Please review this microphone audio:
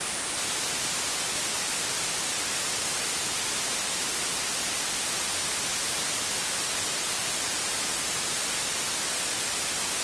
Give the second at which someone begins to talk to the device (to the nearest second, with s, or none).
none